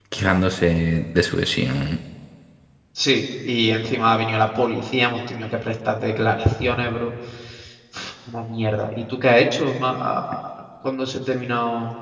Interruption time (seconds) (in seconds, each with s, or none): none